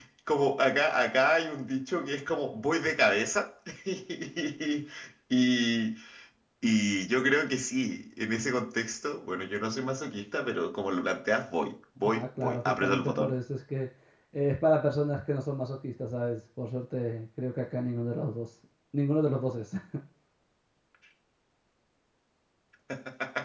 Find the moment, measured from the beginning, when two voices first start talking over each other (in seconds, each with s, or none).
12.0 s